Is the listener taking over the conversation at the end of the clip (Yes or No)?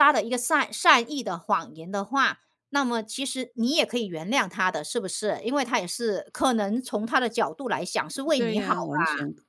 Yes